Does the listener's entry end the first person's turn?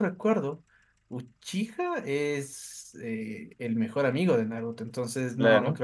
No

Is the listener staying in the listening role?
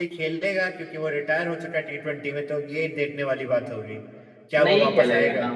No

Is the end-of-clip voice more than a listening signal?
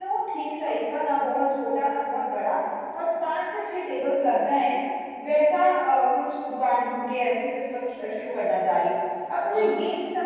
No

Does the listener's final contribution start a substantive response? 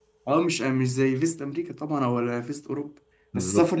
No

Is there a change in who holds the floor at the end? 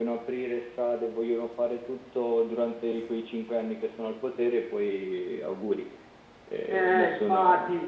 Yes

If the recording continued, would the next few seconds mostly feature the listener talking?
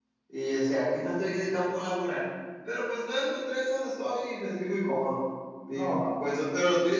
No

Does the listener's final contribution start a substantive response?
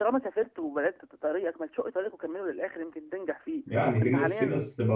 Yes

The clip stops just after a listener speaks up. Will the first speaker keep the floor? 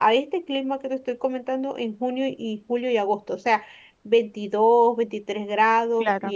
Yes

